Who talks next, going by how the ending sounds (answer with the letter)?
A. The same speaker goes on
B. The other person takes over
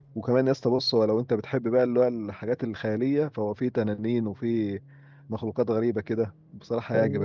B